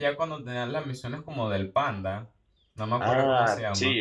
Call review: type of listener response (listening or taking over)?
taking over